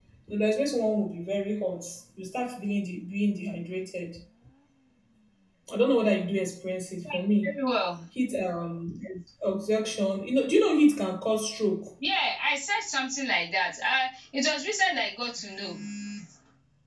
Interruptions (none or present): none